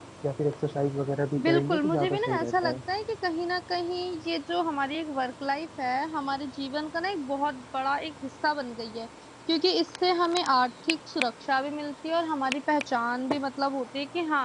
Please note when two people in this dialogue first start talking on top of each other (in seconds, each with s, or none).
1.4 s